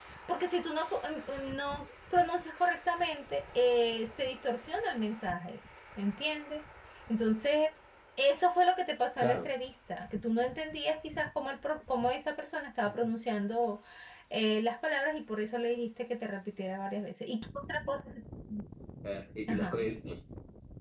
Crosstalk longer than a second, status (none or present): none